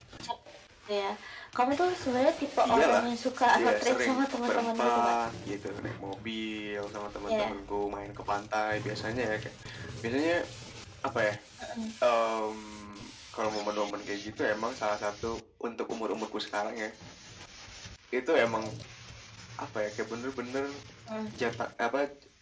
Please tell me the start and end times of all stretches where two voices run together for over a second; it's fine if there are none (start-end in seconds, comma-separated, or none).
3.6-5.2